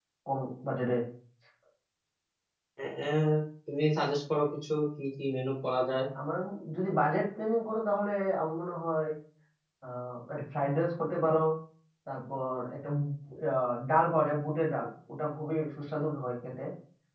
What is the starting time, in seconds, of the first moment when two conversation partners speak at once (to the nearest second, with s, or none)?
none